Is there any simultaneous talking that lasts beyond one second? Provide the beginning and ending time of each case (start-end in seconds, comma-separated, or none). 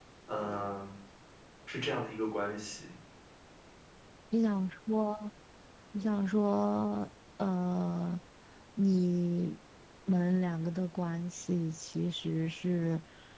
none